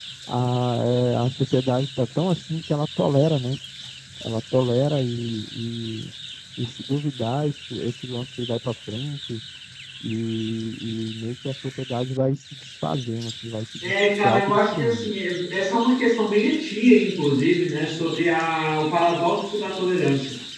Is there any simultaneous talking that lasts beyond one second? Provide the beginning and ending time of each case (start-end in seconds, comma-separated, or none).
13.8-15.1